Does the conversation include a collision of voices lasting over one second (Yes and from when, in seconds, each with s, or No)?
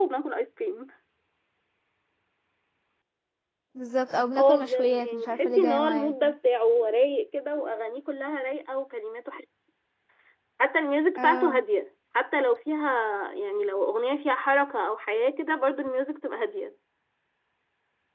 Yes, from 4.4 s